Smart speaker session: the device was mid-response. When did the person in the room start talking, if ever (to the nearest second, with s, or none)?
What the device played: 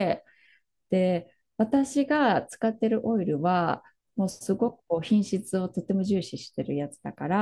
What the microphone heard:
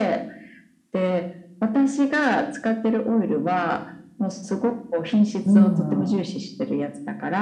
5 s